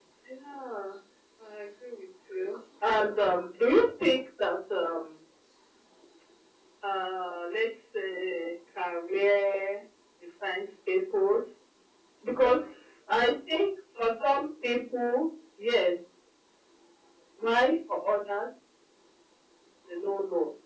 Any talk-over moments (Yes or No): No